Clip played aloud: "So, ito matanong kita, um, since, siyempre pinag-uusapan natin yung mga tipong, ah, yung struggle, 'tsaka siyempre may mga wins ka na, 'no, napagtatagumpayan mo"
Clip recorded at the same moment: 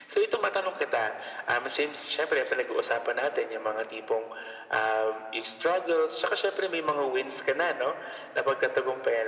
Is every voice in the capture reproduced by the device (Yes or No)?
Yes